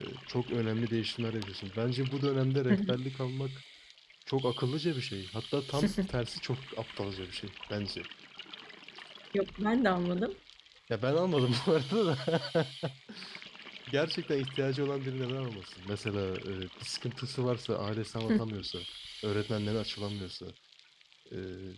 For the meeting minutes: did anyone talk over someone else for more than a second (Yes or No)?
No